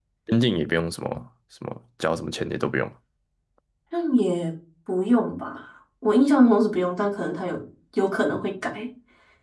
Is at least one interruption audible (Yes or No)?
No